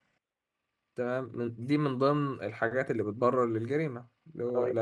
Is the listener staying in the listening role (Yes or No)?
Yes